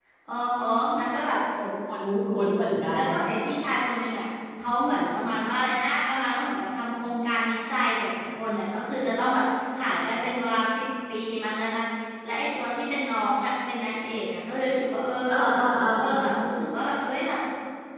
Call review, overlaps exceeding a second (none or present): none